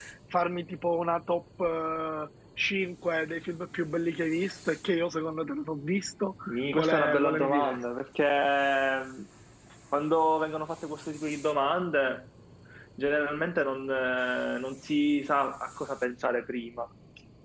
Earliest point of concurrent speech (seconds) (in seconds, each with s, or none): 6.5 s